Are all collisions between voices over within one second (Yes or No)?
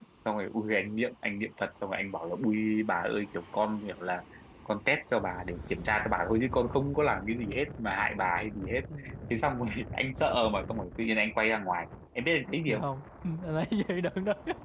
Yes